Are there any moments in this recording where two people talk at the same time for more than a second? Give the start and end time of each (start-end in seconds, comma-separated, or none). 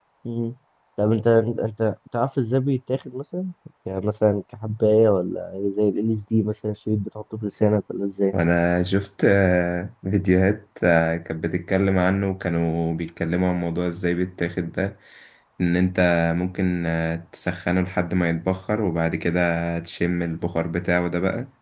none